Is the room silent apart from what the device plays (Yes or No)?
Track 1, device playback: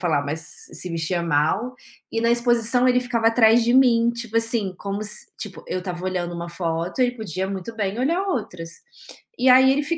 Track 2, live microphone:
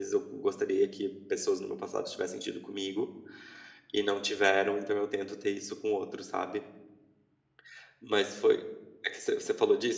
No